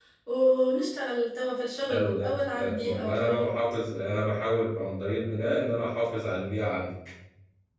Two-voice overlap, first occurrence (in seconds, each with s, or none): 1.9 s